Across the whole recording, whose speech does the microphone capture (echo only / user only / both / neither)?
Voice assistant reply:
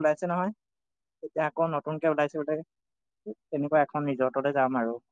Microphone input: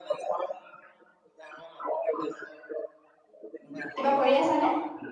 both